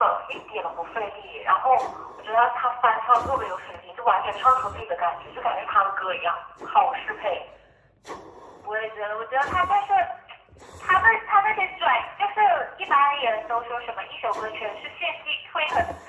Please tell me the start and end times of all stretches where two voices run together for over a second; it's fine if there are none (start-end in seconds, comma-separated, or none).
none